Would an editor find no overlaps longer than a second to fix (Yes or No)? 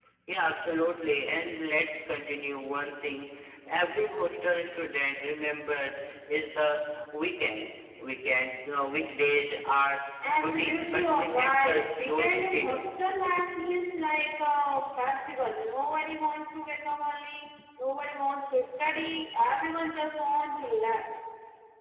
No